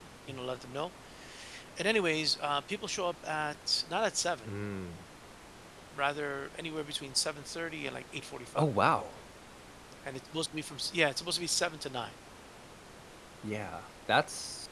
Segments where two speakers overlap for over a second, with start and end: none

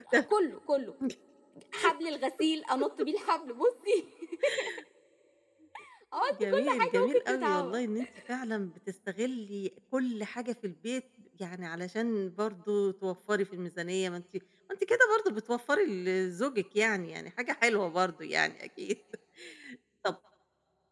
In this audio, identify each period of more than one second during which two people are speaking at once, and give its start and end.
6.3-7.8

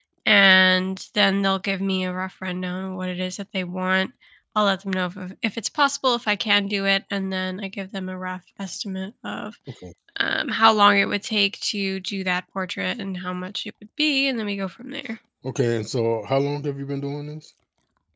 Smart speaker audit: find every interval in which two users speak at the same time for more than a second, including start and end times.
none

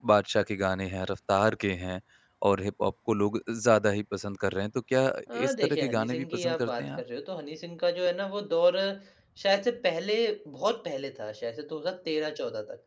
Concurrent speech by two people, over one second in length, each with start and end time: 5.5-7.0

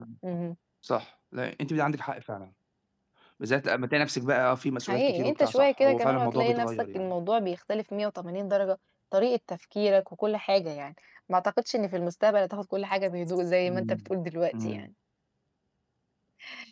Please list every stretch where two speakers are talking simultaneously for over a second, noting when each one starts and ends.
4.9-7.0

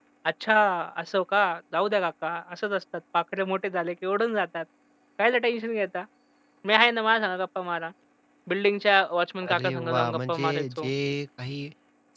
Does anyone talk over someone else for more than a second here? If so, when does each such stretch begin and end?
9.5-10.9

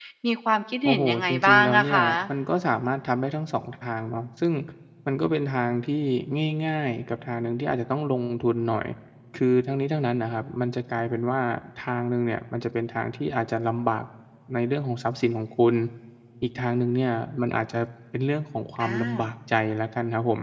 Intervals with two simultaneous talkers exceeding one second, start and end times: 0.8-2.1

